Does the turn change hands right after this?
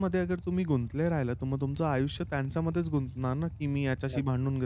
No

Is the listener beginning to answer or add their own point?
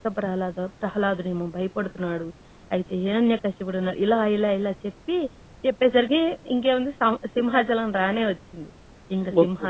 No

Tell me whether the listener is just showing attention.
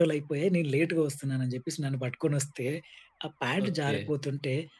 Yes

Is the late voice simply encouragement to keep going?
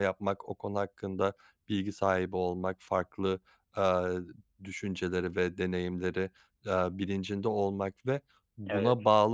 Yes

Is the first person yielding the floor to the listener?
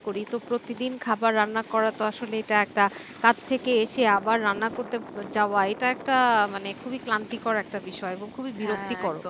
No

